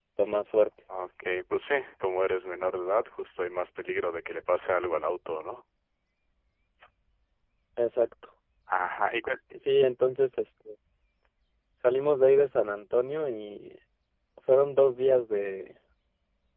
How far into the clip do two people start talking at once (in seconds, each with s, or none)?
none